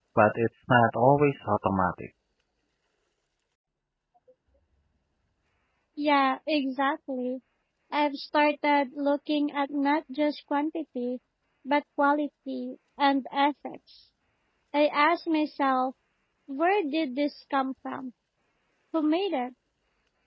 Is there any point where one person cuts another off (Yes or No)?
No